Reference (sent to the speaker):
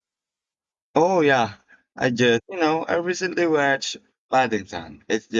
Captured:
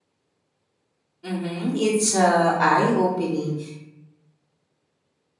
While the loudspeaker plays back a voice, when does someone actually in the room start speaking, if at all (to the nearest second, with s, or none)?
1 s